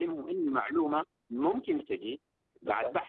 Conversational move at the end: listening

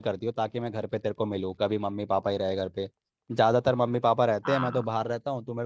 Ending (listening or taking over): listening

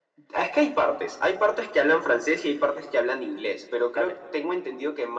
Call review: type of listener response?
listening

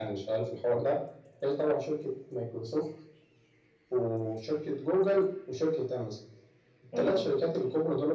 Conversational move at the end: listening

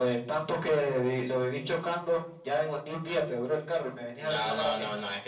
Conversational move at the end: taking over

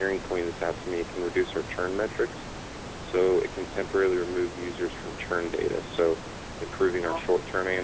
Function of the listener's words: listening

